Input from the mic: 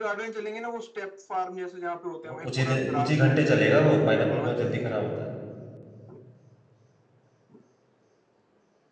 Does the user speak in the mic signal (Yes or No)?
Yes